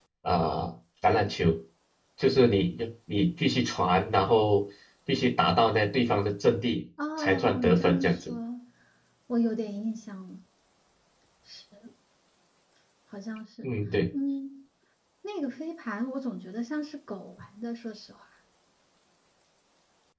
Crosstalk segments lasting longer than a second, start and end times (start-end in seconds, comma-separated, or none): 7.2-8.4